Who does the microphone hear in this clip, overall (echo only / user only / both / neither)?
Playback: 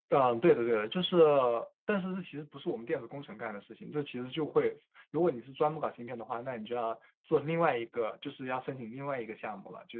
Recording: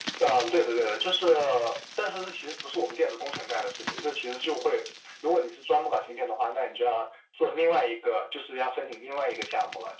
echo only